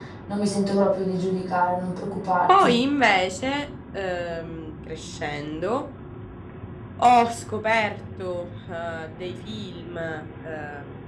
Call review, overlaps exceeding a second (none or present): none